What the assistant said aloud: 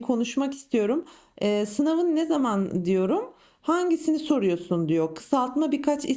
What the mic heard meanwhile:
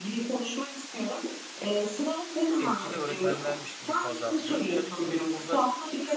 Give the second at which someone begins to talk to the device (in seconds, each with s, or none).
2.6 s